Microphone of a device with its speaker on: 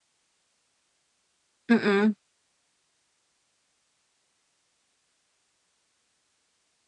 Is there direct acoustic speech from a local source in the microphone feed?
Yes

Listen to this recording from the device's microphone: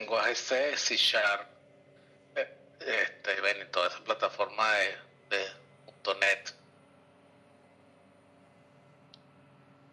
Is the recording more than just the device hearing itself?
No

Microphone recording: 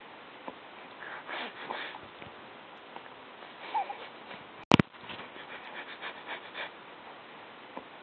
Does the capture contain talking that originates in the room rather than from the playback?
No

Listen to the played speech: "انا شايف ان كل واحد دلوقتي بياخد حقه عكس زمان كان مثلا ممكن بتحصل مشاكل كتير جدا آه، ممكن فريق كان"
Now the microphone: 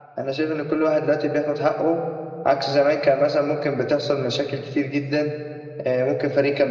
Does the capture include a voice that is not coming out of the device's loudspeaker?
No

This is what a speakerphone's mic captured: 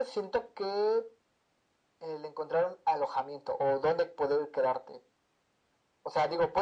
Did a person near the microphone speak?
No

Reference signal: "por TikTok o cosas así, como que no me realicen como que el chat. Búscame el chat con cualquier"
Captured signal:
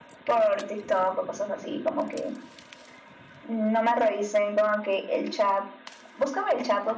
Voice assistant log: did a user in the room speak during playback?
No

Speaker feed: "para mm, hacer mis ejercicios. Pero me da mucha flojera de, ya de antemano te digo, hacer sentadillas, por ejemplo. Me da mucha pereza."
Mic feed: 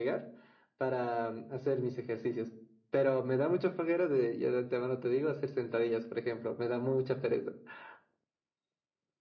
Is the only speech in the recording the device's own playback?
Yes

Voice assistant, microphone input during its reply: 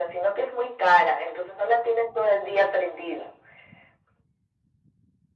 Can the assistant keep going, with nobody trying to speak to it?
Yes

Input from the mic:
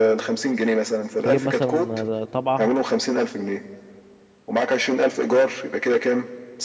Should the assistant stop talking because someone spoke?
Yes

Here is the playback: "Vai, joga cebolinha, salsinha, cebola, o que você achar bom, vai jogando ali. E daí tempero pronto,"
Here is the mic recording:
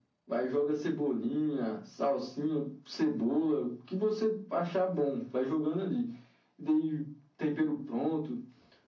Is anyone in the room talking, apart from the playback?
No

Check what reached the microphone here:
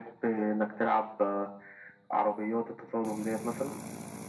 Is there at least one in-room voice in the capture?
No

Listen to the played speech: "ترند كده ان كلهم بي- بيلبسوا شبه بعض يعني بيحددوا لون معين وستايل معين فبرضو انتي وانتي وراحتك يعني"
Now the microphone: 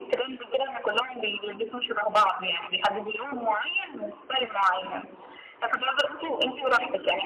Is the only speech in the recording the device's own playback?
Yes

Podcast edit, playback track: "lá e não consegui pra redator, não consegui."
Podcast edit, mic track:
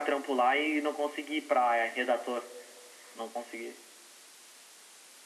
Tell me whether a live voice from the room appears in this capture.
No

